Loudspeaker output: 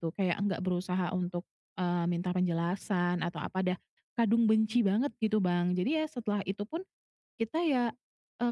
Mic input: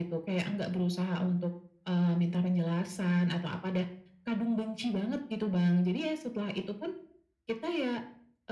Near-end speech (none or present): none